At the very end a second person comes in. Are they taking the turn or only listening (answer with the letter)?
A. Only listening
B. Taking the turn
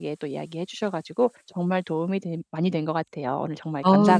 B